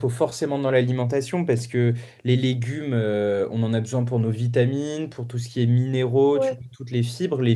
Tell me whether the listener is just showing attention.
Yes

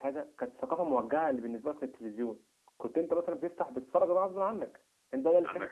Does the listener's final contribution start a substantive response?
No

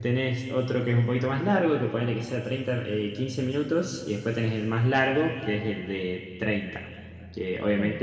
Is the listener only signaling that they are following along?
Yes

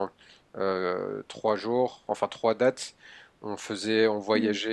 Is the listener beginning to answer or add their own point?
No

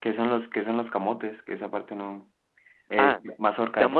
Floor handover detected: Yes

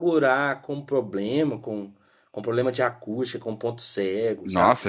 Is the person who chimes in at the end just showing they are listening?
No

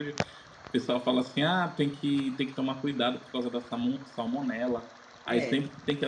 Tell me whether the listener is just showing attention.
Yes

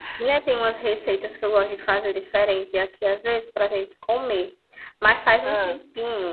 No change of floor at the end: Yes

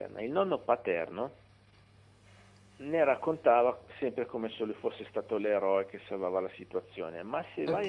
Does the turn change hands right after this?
No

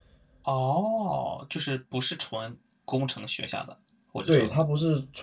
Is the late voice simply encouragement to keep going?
No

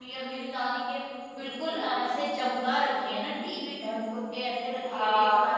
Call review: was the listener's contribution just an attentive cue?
No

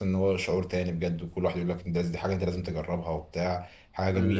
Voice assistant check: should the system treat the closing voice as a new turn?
Yes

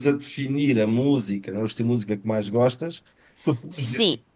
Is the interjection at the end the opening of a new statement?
No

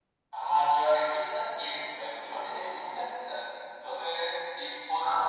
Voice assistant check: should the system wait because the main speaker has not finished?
Yes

